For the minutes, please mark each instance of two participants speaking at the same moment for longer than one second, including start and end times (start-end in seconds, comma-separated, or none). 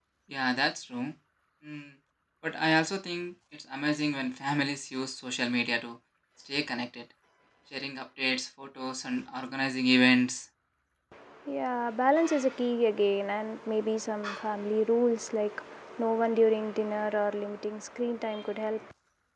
none